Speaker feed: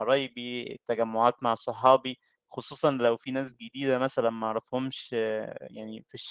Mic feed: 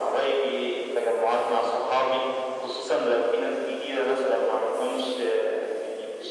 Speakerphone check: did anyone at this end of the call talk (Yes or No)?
No